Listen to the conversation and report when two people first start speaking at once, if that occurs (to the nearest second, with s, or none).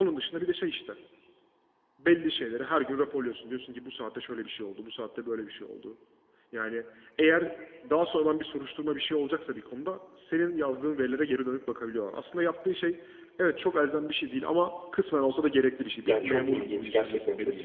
16 s